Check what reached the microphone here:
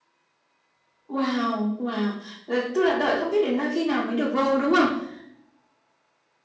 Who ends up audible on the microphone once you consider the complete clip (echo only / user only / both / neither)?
echo only